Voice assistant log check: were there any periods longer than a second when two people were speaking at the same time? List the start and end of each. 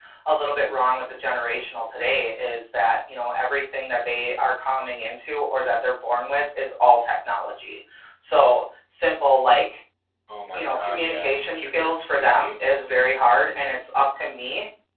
10.5-12.4

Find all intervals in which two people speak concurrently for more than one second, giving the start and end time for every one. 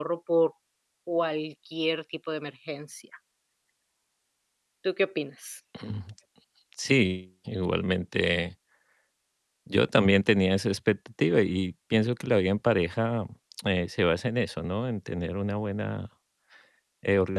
none

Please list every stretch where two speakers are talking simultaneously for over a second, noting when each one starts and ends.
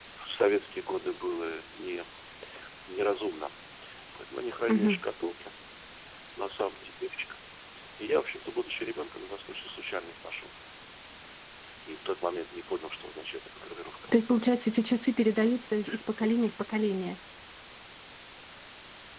none

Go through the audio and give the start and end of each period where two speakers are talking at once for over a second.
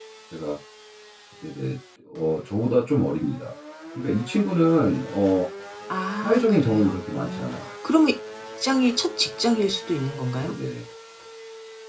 6.2-7.5

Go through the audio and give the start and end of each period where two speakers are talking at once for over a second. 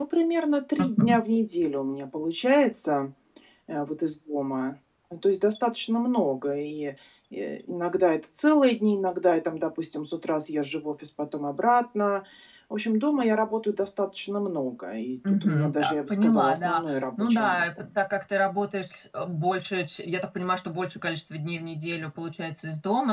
15.4-17.8

